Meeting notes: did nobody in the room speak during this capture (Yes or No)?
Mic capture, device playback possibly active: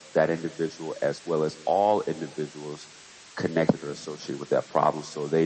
Yes